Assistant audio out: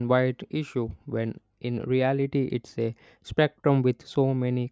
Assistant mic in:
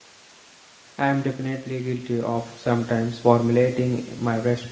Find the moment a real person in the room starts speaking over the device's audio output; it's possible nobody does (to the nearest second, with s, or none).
1 s